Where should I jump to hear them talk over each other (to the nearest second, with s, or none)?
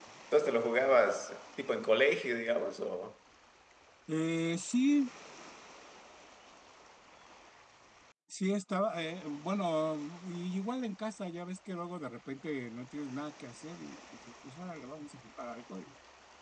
none